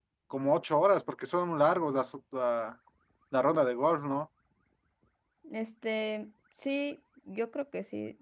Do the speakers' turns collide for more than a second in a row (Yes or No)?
No